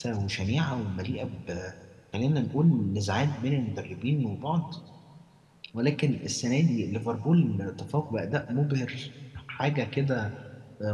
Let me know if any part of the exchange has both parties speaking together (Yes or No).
No